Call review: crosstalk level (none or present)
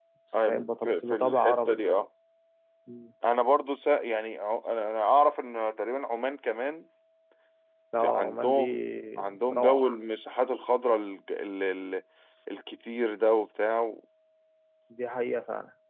present